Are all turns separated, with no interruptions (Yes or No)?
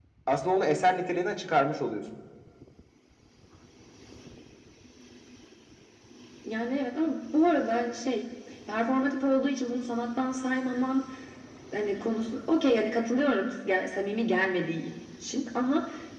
Yes